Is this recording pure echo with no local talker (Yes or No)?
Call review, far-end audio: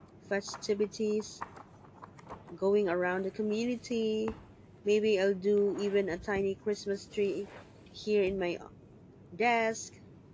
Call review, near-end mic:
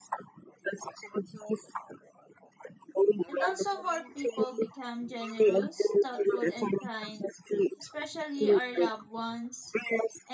No